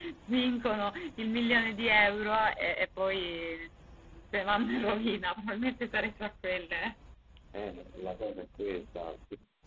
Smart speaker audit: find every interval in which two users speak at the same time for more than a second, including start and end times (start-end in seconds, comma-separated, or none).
none